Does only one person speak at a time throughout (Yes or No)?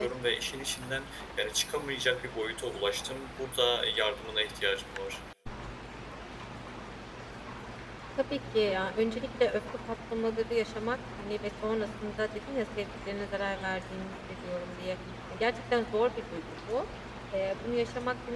Yes